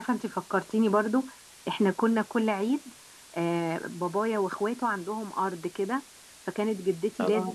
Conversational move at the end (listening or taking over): listening